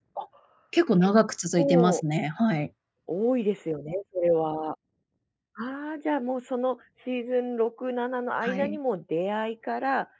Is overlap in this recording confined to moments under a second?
Yes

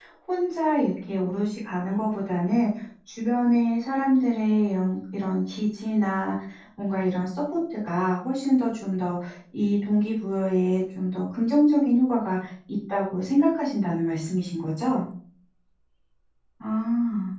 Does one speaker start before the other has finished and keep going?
No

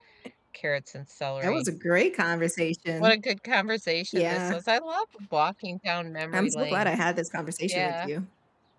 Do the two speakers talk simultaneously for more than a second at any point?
No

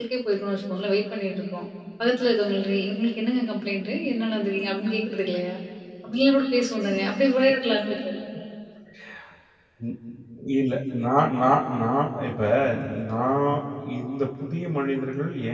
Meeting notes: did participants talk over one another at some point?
No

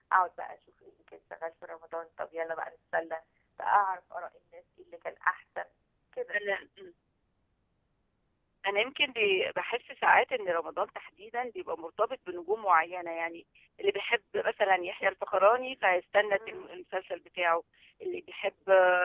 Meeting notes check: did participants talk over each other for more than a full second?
No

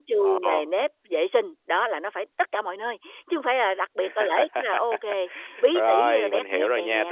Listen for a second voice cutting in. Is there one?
Yes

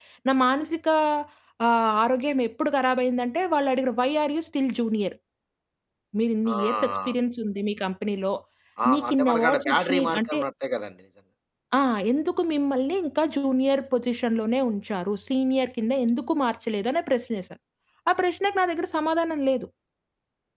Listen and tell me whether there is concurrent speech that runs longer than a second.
Yes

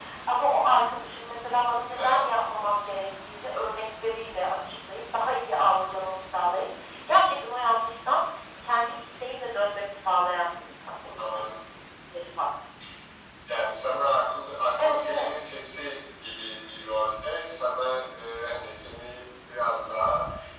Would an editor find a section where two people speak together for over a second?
No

